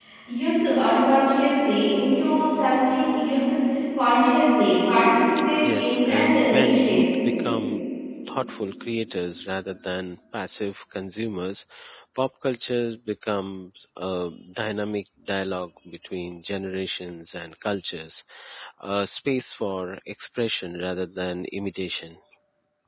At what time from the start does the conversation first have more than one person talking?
5.6 s

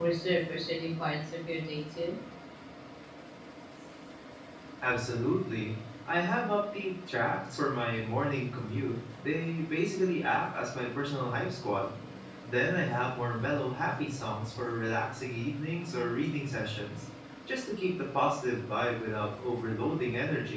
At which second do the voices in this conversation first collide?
none

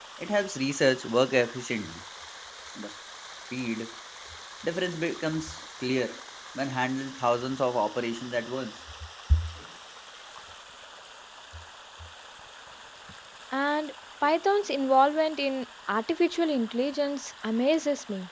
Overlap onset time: none

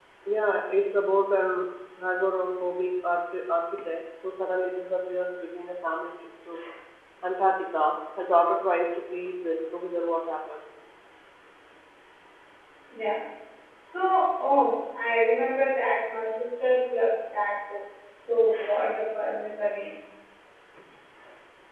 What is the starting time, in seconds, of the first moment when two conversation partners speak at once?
none

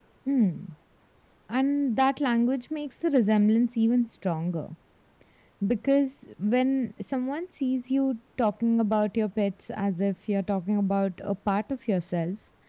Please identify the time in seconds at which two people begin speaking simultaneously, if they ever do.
none

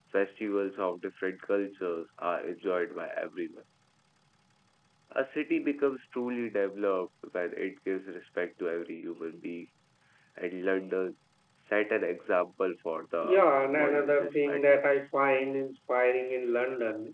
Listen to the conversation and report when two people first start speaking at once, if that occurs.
13.2 s

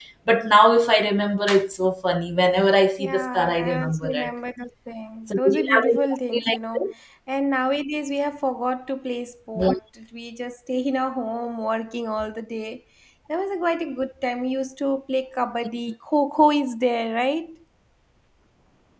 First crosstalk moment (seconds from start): 3.0 s

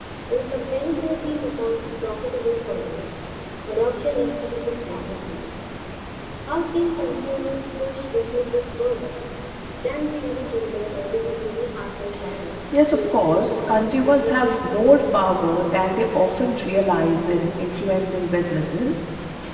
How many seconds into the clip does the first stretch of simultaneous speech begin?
12.7 s

